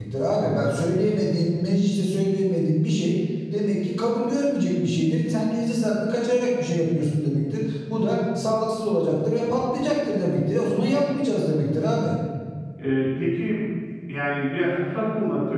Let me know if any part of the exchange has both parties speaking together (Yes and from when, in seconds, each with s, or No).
No